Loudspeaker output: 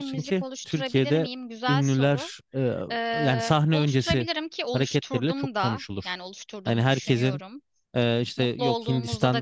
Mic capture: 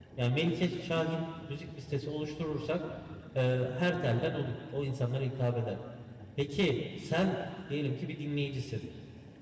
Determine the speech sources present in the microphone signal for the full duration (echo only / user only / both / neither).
user only